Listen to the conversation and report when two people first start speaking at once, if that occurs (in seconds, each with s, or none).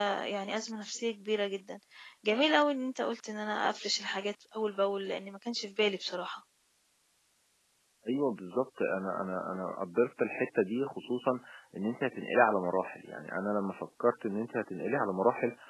none